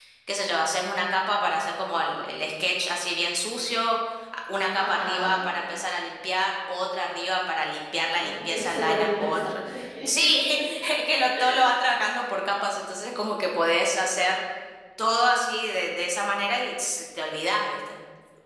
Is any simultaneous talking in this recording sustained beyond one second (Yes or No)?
Yes